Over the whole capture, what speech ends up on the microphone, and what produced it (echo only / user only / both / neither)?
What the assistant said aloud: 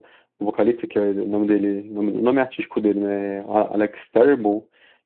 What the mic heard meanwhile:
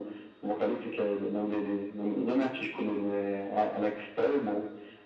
echo only